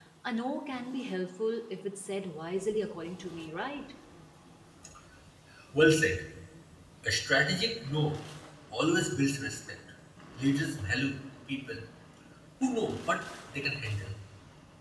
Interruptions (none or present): none